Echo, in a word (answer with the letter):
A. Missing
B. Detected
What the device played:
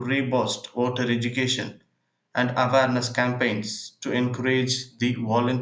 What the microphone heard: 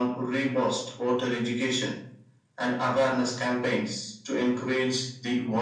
B